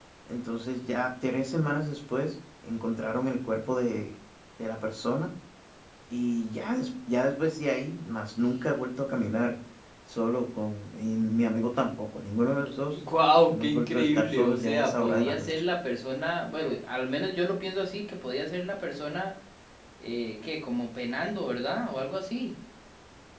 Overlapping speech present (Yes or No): Yes